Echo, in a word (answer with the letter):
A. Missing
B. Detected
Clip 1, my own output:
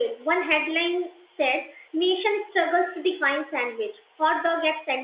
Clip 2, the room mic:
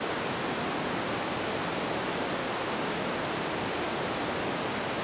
A